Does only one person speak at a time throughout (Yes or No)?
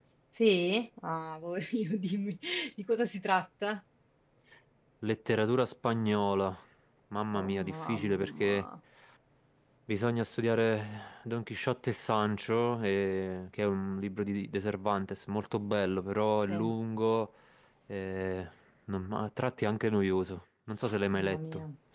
No